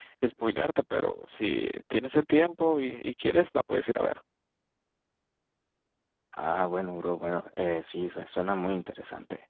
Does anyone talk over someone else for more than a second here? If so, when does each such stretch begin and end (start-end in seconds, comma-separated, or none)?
none